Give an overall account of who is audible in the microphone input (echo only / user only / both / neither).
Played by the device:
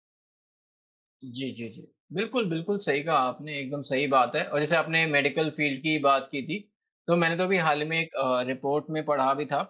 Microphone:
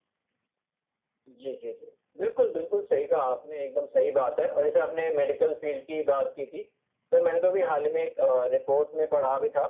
echo only